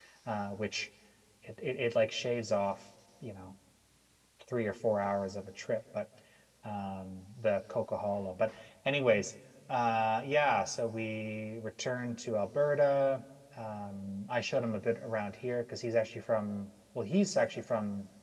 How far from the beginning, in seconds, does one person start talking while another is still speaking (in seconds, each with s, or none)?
none